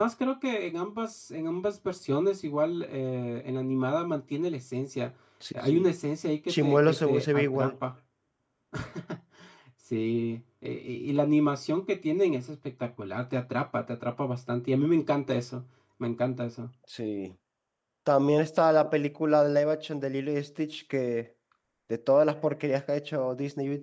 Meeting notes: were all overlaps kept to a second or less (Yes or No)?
No